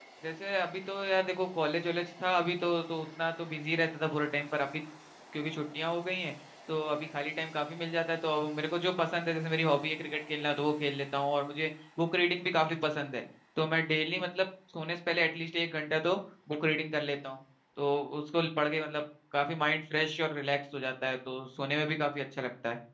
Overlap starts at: none

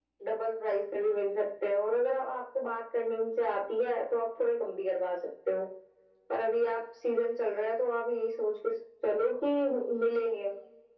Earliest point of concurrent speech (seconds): none

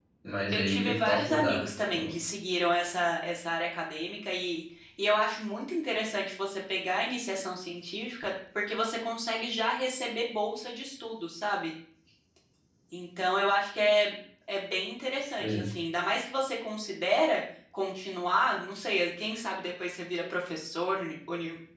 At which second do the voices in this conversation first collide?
1 s

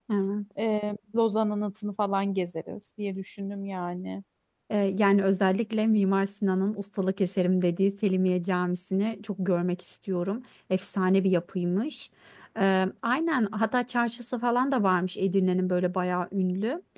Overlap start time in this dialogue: none

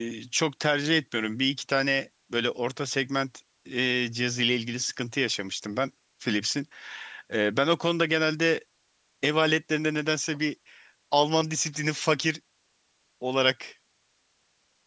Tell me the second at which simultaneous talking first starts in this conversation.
none

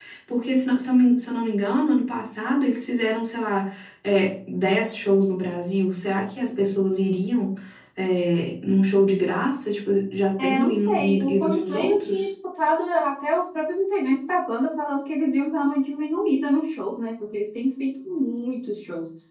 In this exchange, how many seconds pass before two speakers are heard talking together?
10 s

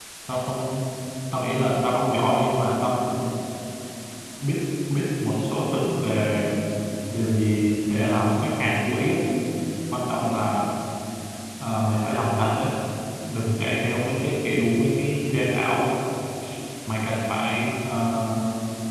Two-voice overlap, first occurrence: none

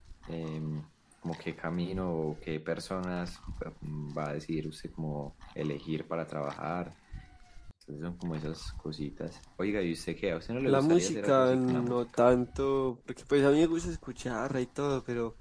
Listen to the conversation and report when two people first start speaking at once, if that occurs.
11 s

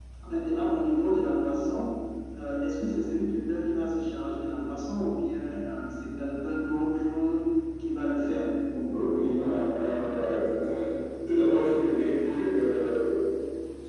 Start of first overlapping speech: none

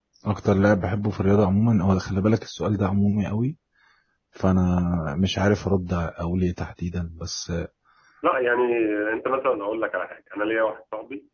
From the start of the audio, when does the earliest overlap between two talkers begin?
none

